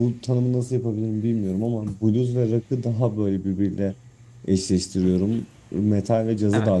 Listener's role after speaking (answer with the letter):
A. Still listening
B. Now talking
A